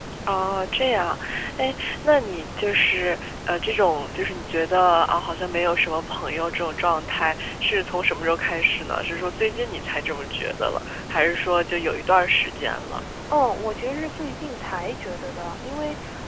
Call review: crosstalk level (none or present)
none